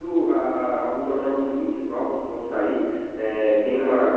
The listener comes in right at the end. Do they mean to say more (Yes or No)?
No